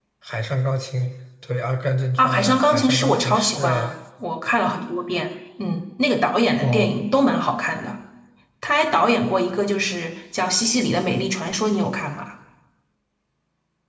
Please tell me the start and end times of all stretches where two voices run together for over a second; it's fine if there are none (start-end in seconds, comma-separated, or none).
2.2-3.9